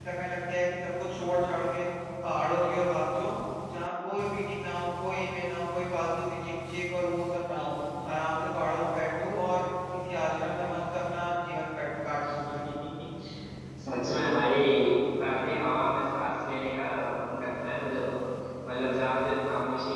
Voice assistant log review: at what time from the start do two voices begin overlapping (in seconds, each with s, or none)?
none